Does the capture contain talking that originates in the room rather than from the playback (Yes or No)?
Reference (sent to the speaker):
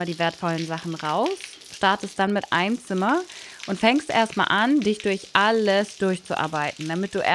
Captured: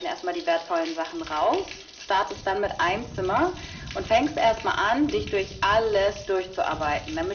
No